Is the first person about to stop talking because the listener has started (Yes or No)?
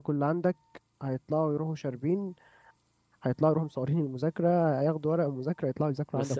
Yes